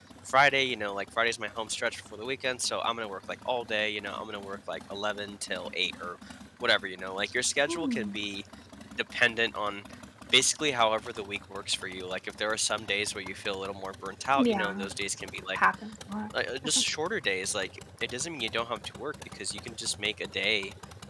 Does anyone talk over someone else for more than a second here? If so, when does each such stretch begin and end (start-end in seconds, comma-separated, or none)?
none